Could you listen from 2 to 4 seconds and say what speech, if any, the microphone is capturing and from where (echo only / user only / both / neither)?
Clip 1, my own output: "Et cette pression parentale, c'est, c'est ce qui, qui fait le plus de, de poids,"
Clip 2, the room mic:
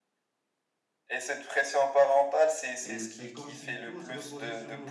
both